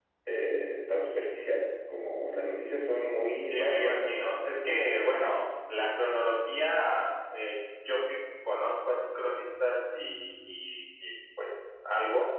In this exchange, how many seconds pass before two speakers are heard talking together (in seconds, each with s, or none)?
3.5 s